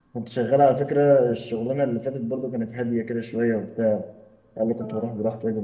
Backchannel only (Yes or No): Yes